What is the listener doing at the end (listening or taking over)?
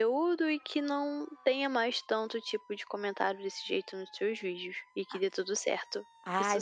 taking over